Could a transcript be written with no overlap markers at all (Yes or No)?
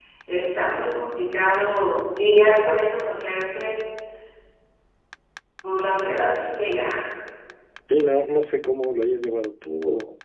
Yes